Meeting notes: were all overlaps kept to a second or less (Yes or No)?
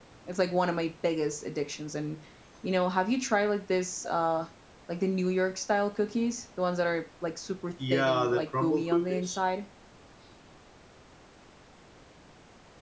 No